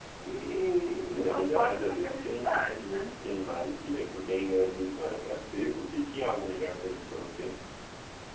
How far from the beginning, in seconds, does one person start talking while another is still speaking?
1.1 s

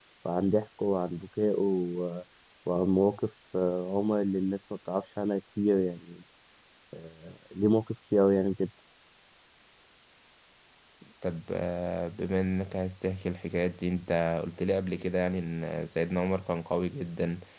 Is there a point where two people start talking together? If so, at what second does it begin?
none

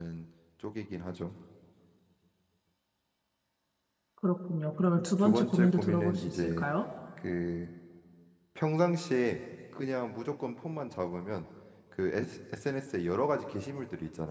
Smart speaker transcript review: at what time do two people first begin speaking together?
5.2 s

